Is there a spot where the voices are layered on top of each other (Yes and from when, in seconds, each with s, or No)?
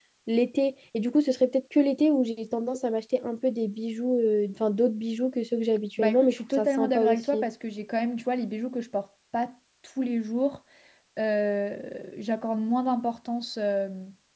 Yes, from 6.0 s